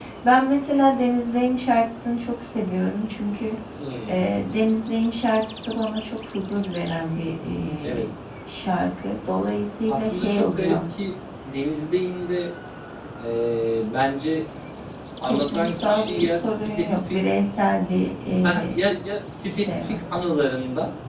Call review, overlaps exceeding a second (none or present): present